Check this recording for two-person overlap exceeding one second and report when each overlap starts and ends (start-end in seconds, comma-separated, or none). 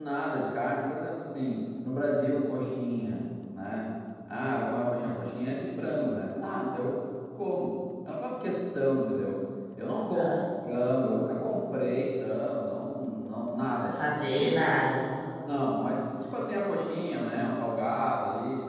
none